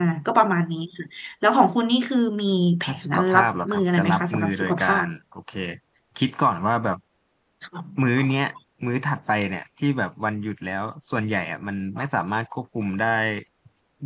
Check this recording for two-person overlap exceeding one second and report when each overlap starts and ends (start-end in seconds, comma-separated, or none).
2.8-4.9